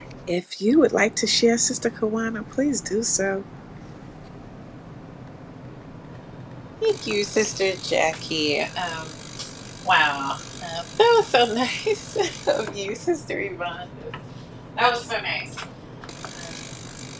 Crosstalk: none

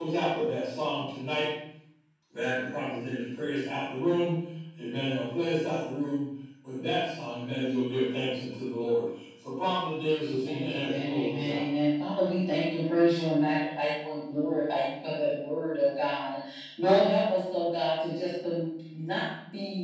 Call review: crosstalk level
present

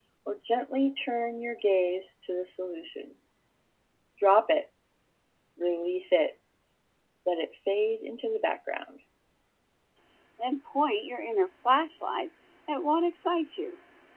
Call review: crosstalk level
none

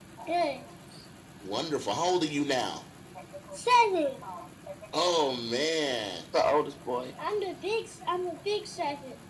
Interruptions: none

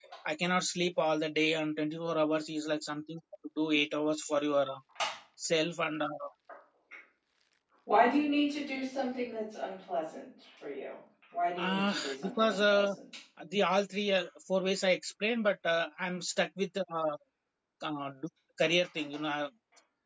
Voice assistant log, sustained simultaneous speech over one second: present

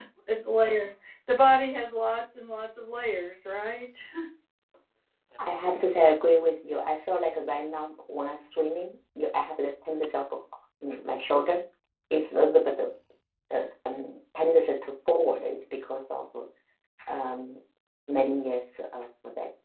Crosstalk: none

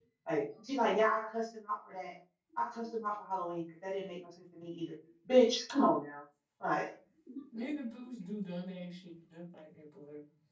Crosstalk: none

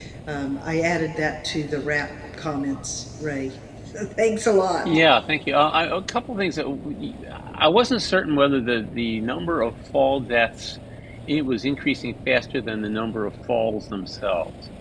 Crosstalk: none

